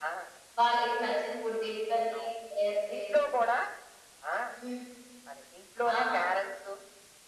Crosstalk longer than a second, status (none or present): none